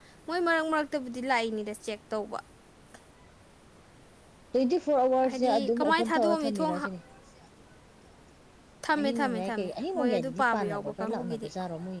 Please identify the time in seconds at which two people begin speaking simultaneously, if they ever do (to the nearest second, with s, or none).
5 s